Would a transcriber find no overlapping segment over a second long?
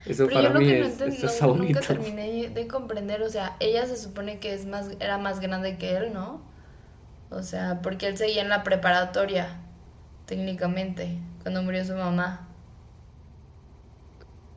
No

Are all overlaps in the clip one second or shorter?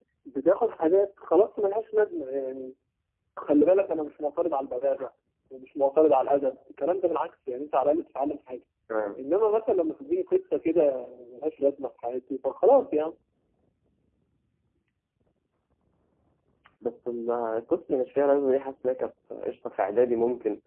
Yes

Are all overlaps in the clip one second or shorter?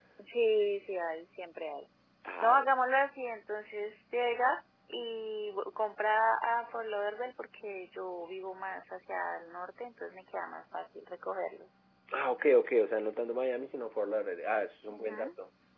Yes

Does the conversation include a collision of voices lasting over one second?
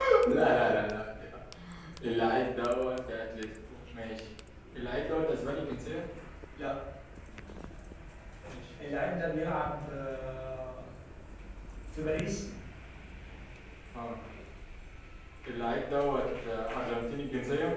No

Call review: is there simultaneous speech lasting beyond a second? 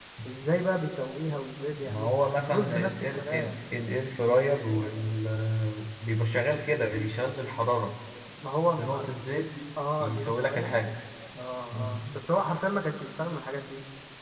Yes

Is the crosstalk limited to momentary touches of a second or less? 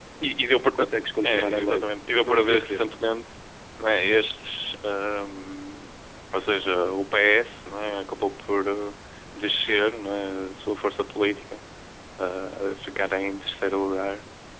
No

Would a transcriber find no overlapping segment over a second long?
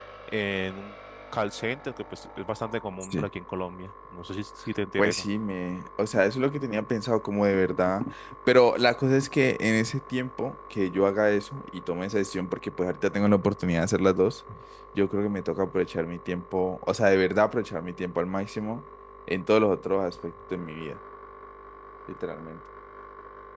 Yes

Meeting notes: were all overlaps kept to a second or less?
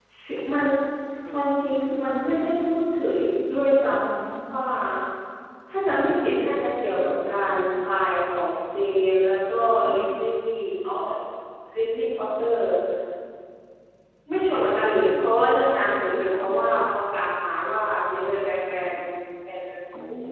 No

